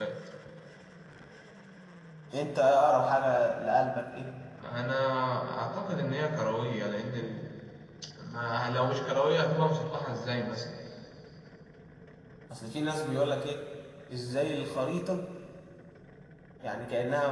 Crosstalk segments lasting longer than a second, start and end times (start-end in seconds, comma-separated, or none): none